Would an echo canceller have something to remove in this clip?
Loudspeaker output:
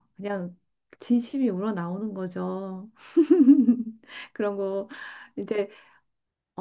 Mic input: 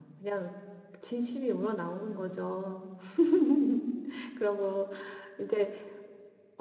Yes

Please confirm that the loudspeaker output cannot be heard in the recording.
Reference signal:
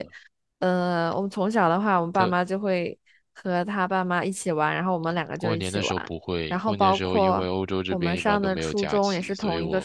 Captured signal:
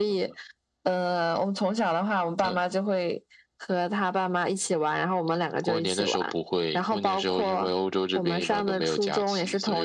No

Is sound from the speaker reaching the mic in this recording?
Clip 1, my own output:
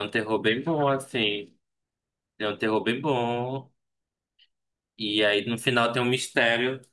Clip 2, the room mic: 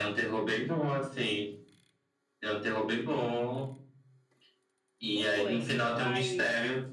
Yes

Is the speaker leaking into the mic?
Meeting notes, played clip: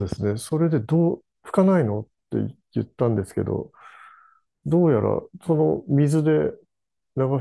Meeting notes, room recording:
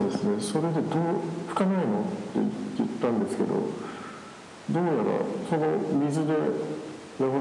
Yes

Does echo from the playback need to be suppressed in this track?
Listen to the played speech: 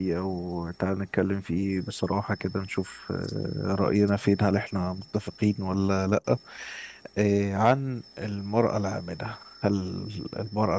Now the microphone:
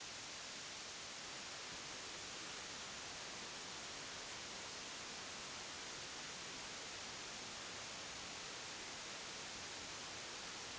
No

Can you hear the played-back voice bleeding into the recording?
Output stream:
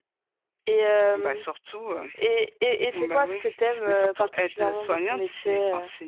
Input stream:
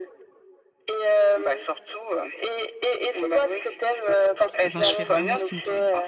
Yes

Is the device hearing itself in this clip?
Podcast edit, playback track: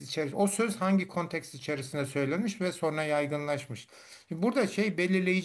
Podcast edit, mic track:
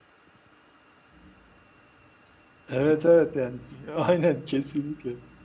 No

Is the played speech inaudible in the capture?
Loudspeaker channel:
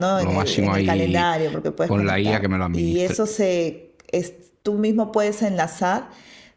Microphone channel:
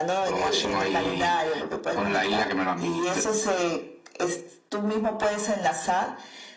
No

